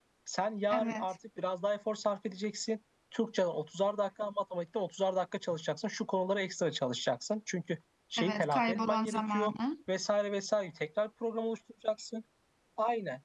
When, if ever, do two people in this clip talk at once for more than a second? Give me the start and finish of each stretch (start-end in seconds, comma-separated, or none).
8.2-9.5